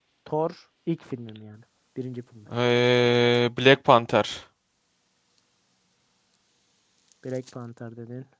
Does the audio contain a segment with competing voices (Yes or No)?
No